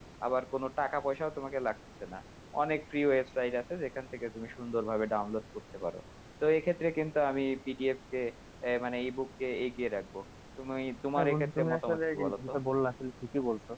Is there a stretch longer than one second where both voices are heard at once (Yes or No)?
Yes